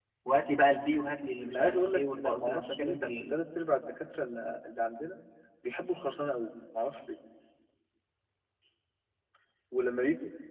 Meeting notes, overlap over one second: present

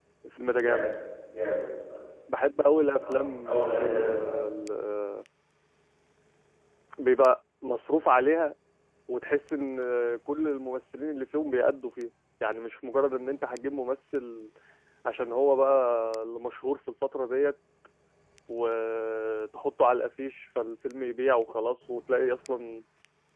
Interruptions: present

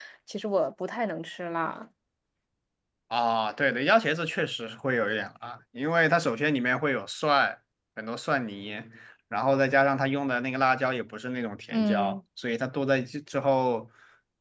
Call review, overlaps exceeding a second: none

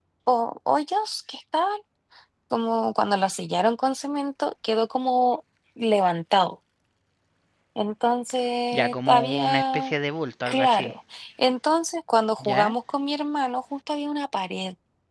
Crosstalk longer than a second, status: present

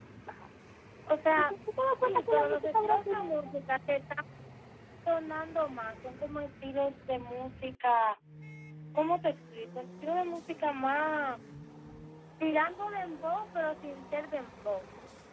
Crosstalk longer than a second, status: present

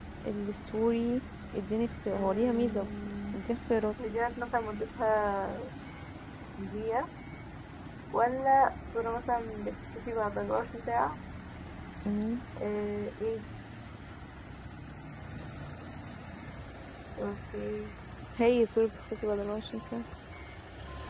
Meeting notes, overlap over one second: present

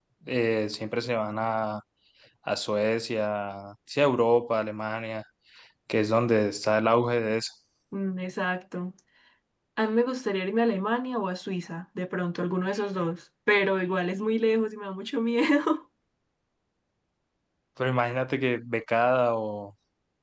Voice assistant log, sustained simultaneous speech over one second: none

